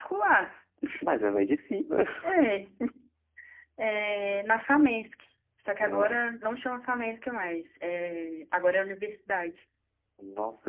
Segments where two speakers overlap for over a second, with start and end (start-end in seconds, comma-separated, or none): none